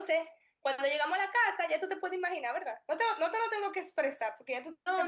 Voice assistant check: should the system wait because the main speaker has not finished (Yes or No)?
No